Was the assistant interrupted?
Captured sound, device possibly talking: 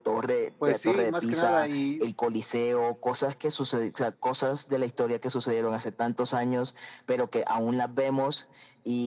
Yes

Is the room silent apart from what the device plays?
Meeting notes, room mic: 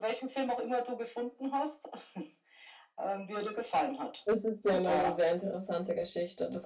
No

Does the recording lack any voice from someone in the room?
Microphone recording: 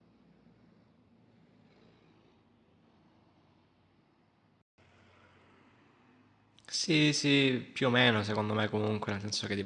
No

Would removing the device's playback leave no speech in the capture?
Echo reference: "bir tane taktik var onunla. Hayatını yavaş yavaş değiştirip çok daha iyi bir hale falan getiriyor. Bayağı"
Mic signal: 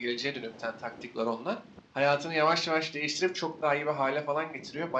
Yes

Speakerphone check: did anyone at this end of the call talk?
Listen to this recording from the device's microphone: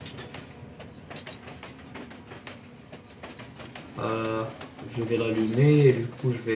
Yes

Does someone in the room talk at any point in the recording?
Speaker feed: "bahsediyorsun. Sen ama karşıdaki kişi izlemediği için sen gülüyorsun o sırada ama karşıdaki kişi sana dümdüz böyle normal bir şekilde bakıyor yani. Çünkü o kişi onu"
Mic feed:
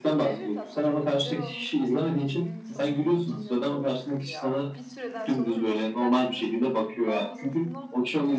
Yes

